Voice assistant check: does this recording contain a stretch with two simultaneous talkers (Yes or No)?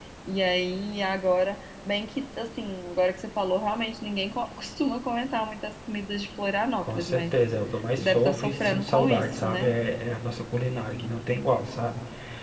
Yes